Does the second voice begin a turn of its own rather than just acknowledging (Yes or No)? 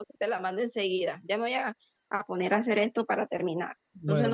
Yes